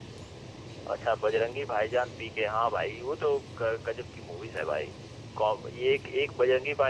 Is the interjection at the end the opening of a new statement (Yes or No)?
No